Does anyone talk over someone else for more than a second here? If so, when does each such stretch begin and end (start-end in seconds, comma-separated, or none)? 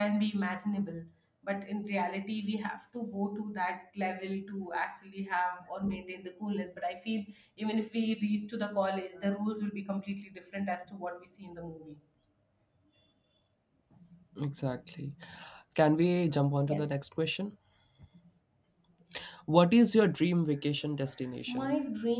none